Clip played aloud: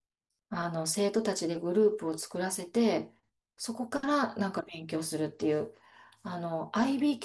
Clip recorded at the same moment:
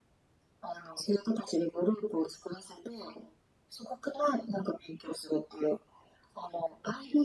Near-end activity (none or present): none